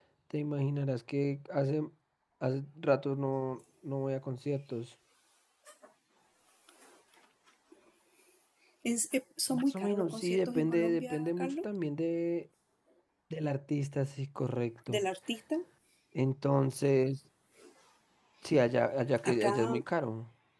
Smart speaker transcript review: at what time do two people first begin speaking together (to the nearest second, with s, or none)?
10 s